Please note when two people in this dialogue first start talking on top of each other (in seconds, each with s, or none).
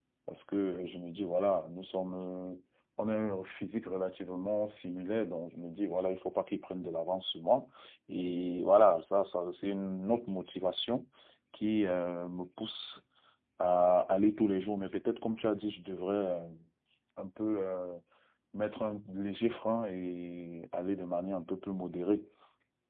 none